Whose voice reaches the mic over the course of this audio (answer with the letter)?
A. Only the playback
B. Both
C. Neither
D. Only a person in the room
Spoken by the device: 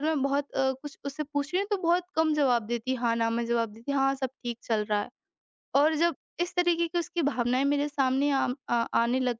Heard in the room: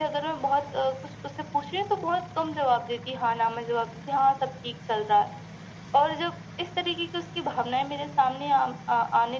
A